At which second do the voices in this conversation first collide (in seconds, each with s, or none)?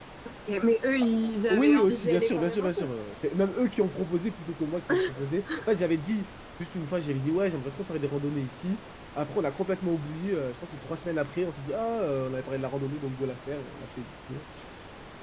1.5 s